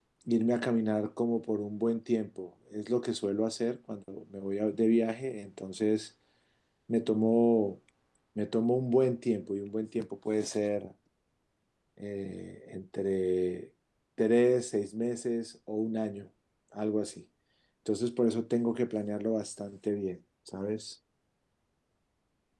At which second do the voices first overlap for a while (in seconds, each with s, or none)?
none